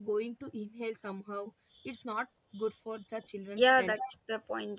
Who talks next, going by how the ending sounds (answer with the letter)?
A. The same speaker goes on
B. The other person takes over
B